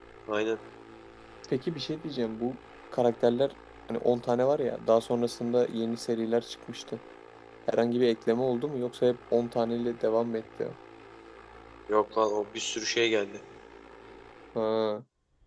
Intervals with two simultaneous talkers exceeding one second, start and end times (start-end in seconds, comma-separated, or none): none